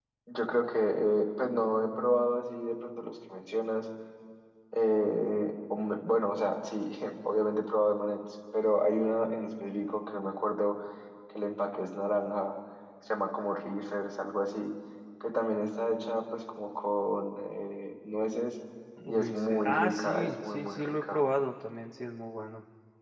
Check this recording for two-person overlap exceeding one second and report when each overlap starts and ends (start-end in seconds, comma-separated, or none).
19.1-21.2